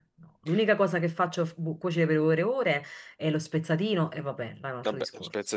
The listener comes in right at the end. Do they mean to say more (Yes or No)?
Yes